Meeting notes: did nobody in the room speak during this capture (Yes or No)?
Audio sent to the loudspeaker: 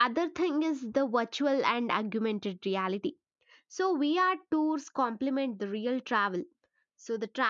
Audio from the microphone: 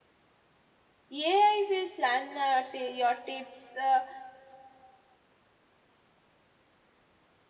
No